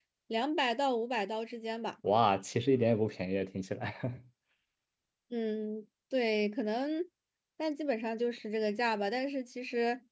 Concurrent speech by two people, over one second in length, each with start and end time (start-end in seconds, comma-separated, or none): none